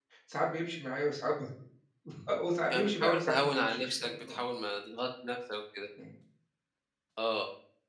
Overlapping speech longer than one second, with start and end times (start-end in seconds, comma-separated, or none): 2.7-4.4